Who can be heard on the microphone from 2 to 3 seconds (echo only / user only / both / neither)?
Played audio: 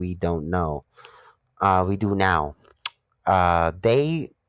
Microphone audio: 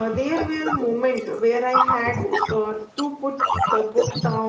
both